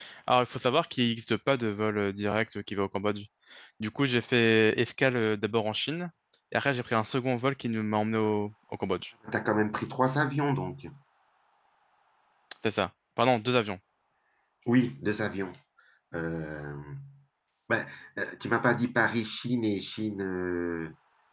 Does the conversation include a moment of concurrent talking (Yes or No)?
No